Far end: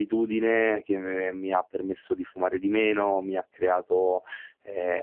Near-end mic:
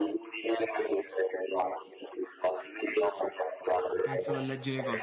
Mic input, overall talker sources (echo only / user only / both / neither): both